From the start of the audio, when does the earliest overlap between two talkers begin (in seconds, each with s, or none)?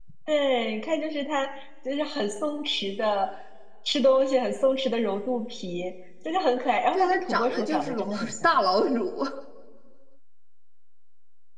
7.0 s